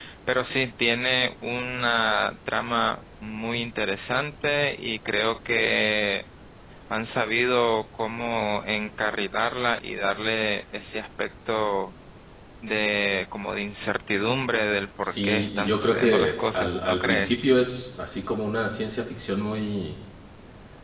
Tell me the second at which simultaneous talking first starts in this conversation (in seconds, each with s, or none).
15.0 s